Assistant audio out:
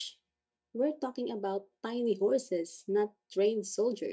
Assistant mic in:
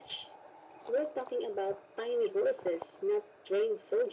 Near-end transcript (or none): none